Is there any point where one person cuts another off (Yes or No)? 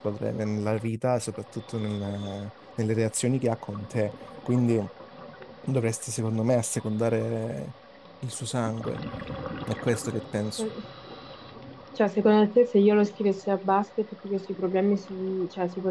No